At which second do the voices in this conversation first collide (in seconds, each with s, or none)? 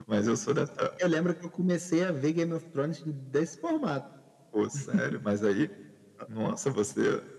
none